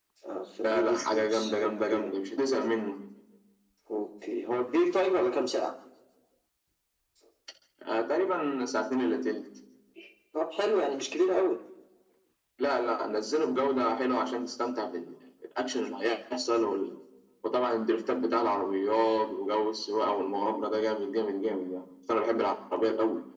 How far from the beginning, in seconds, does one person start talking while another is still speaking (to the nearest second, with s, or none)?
1 s